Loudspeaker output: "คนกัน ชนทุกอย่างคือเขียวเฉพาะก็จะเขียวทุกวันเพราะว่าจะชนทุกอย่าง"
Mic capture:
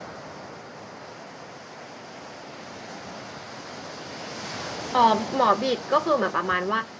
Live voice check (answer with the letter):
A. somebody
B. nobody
A